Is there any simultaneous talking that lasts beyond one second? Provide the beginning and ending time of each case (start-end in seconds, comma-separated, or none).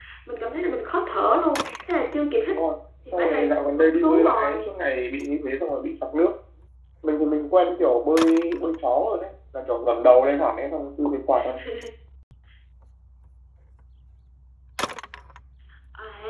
3.1-4.6